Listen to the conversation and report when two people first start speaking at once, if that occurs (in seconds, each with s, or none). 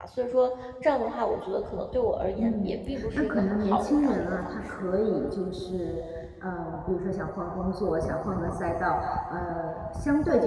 2.4 s